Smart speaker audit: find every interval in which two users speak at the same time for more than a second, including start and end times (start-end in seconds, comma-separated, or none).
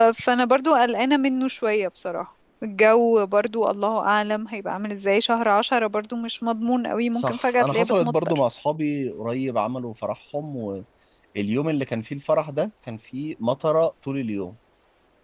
7.1-8.4